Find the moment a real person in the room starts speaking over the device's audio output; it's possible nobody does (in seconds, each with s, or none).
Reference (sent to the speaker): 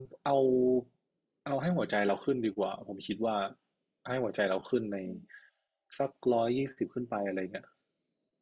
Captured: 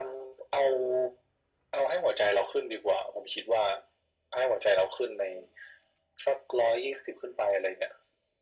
none